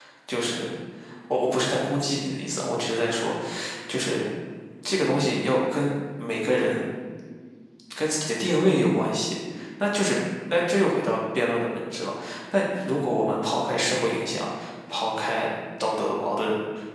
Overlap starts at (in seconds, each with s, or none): none